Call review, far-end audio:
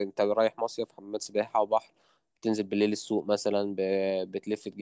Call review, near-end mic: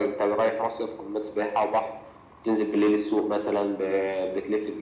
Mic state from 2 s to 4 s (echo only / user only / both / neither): echo only